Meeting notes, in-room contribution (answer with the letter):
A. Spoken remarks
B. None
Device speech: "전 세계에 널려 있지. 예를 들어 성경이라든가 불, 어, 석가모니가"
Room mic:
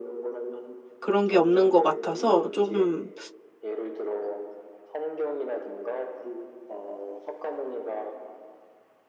A